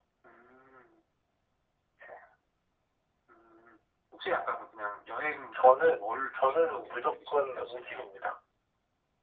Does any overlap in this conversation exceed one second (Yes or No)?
Yes